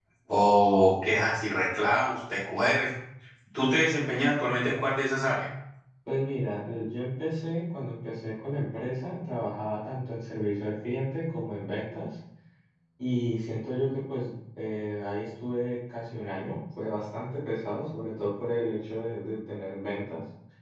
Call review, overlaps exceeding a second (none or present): none